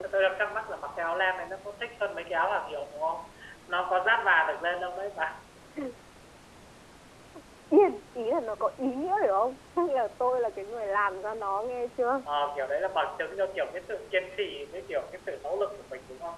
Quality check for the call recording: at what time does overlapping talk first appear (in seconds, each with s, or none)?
none